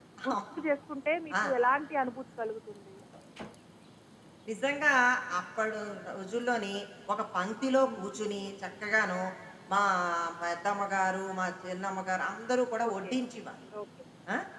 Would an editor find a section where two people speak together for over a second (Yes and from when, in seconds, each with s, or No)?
No